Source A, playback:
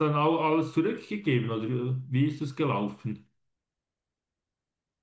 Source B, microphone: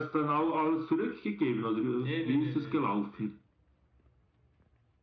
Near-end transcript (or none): Nee, nee, nee, nee, nee, nee. nee.